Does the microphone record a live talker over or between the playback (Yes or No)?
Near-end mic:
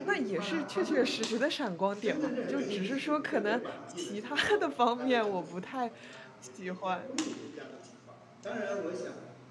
Yes